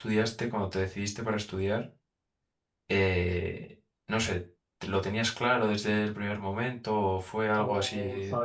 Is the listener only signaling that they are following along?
No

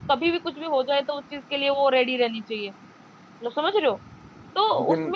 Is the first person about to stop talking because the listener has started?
No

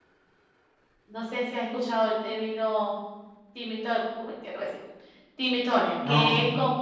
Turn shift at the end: Yes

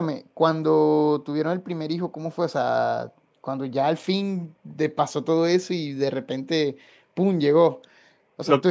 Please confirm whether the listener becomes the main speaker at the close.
No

